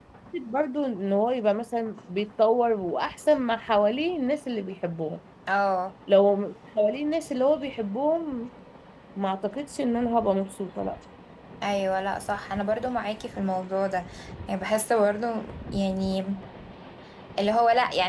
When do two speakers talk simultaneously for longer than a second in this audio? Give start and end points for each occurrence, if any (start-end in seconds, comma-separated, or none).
none